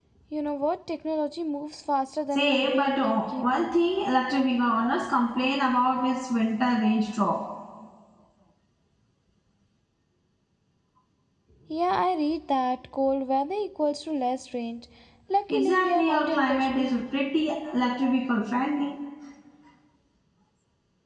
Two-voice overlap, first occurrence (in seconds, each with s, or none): 2.4 s